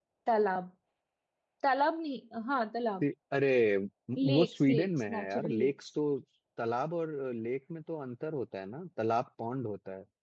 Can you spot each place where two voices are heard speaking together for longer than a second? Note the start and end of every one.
4.2-5.7

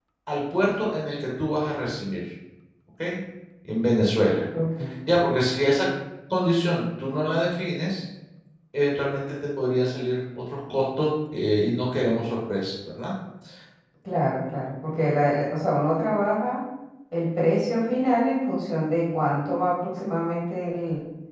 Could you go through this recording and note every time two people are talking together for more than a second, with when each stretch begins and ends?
none

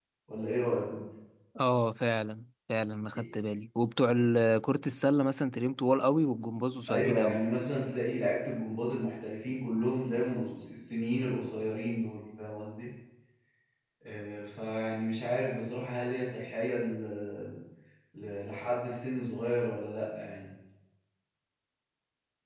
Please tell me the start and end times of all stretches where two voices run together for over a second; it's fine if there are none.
none

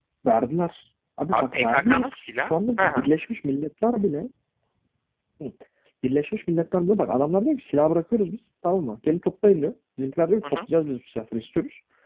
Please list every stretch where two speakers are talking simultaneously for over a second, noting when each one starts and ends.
1.3-3.1

